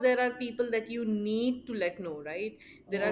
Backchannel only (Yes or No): Yes